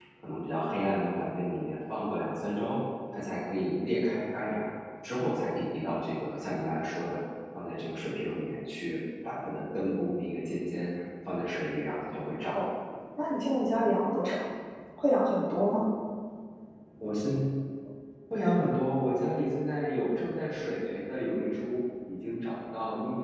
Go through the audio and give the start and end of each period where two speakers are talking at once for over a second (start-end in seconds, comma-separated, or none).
none